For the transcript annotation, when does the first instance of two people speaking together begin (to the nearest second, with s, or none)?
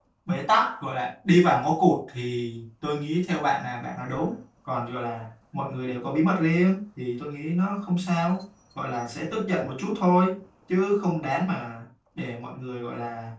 none